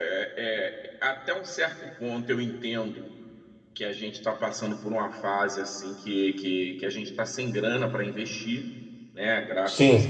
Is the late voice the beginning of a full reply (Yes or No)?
No